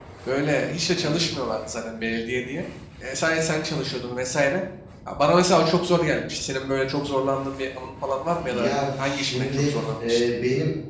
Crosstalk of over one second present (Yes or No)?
Yes